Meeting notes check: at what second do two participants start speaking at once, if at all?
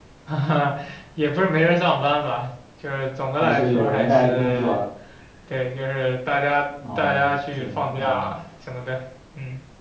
3 s

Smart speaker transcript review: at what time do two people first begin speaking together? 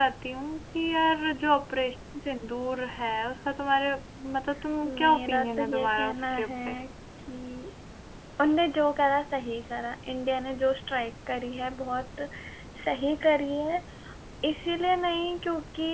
5 s

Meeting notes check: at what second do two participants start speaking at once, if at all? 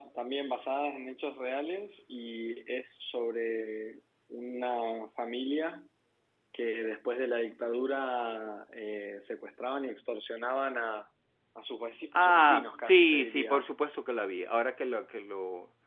12 s

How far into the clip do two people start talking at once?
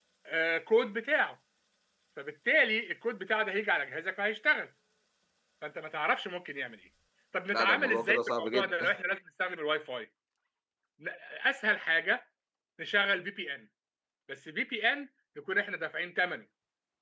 8 s

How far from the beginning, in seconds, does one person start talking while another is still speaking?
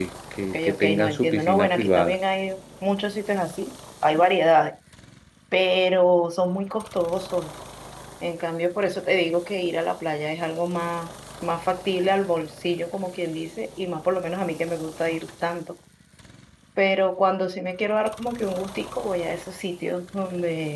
1 s

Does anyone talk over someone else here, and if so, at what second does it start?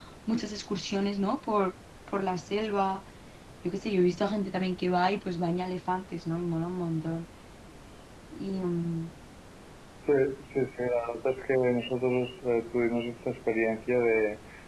none

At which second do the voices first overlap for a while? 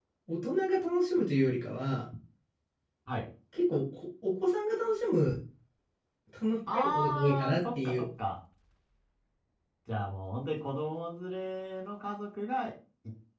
7 s

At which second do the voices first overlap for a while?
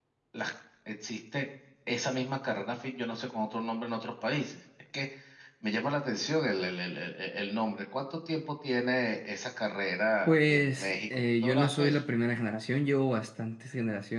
10 s

